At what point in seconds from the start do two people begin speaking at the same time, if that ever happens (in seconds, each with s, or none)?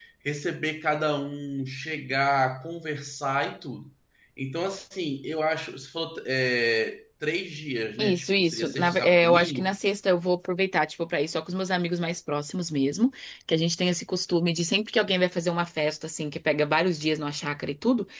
8.0 s